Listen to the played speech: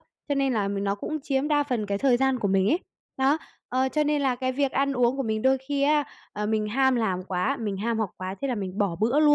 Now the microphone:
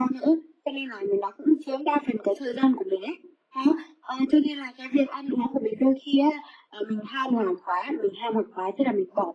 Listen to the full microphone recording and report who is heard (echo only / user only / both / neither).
echo only